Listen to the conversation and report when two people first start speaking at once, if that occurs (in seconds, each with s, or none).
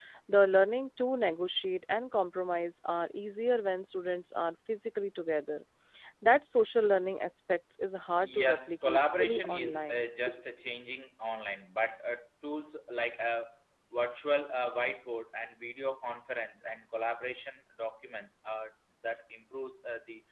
8.2 s